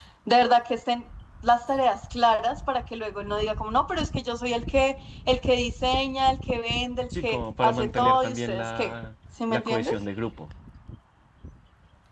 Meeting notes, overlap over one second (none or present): present